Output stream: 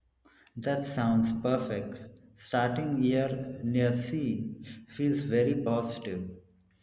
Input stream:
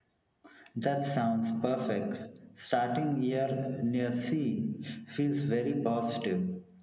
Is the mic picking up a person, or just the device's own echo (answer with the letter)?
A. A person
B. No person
B